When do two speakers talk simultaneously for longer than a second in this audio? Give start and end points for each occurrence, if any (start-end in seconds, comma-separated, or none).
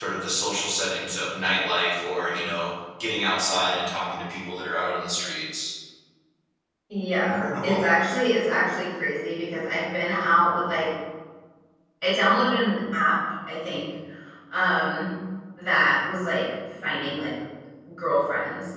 none